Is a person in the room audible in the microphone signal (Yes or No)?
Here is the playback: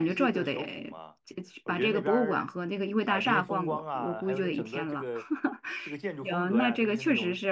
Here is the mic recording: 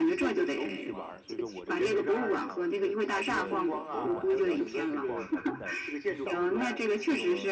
Yes